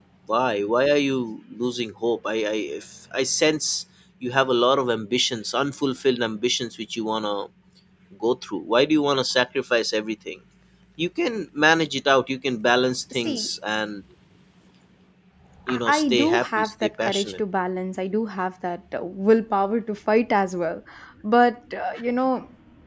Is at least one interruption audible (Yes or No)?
Yes